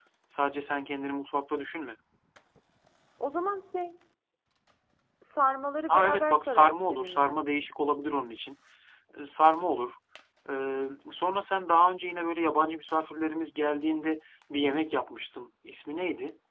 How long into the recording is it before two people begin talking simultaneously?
5.9 s

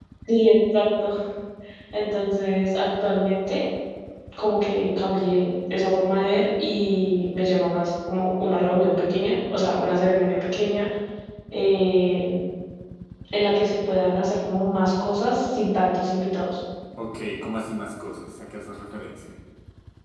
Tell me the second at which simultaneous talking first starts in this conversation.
none

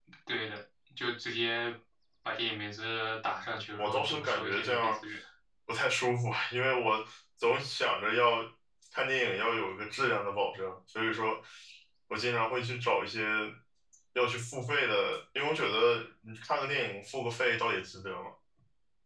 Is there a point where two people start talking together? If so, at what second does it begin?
3.8 s

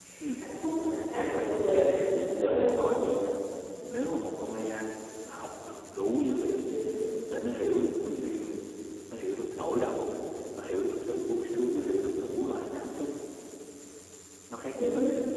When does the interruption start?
1.6 s

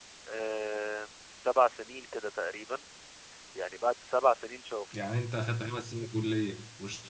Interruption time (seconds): none

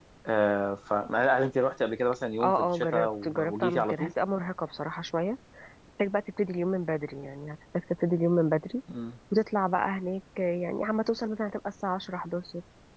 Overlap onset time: 2.4 s

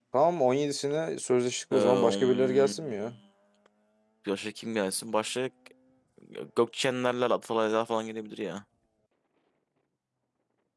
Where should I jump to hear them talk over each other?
1.7 s

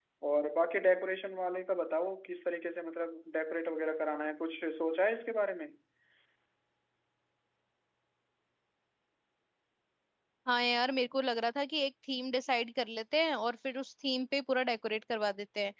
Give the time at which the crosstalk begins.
none

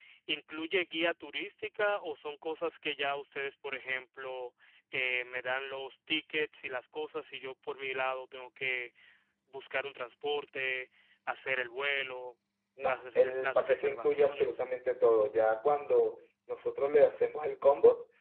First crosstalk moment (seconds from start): 12.9 s

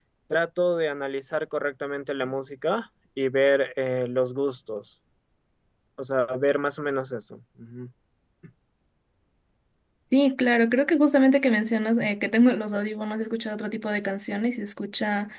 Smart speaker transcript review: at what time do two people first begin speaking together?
none

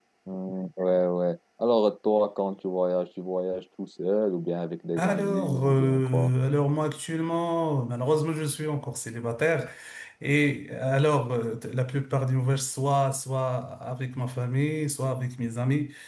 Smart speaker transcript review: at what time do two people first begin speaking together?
5.0 s

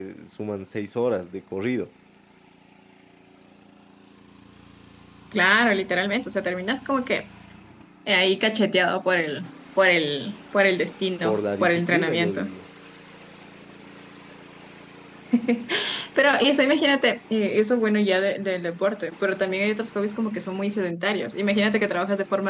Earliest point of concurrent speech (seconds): 11.2 s

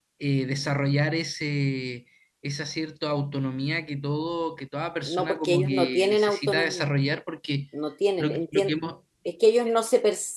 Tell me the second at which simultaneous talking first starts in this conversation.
5.0 s

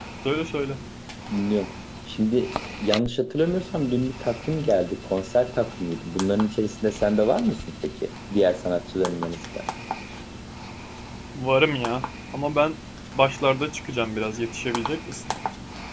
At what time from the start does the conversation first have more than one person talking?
none

